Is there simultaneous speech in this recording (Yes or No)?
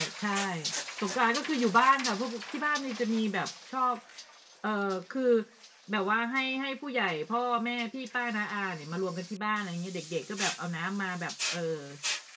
No